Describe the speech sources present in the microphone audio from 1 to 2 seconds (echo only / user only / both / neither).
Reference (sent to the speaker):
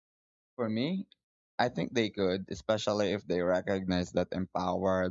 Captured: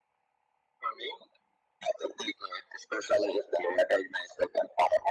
echo only